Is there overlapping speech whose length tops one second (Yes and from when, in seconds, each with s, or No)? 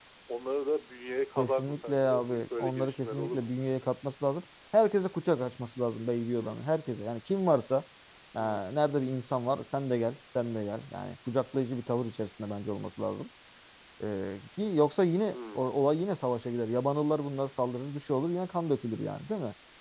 Yes, from 1.4 s